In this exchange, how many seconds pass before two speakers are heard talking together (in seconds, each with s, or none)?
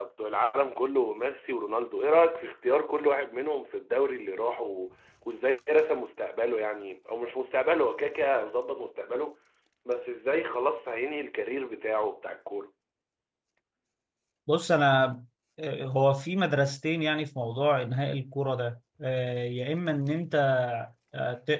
none